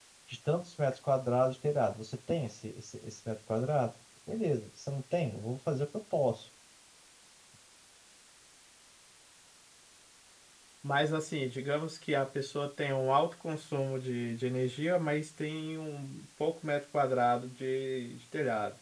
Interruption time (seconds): none

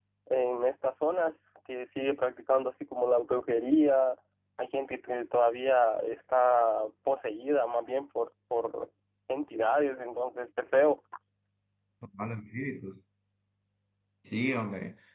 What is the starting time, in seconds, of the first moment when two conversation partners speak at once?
none

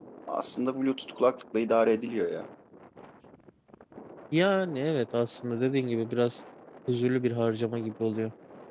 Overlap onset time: none

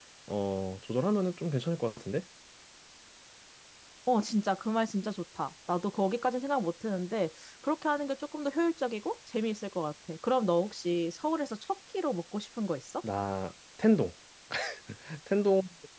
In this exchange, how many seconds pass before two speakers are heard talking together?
none

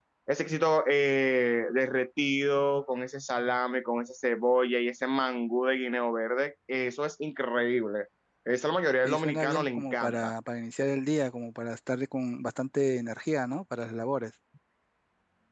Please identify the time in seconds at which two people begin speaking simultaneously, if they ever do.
9.0 s

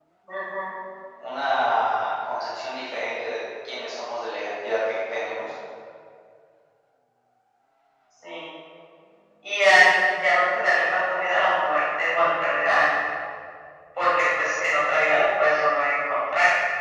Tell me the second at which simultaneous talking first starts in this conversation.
none

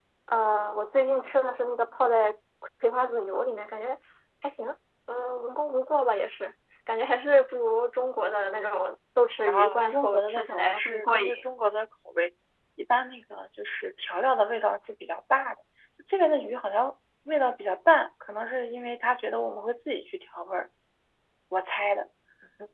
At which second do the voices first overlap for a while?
9.5 s

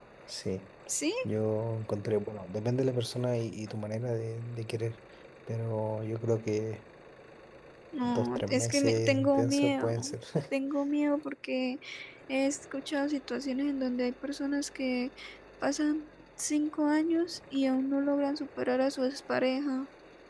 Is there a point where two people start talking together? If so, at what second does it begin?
8.0 s

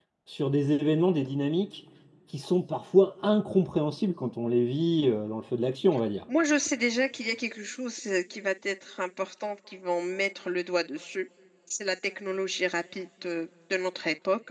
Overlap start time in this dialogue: none

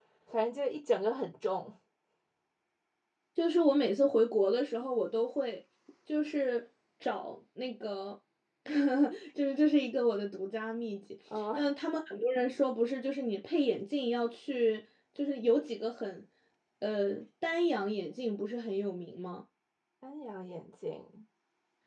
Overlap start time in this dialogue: none

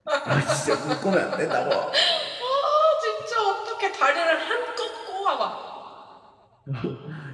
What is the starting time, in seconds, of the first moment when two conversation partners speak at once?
none

